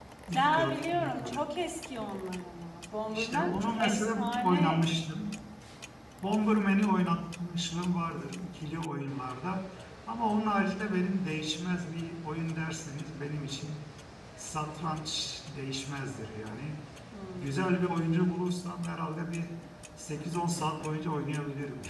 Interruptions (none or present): present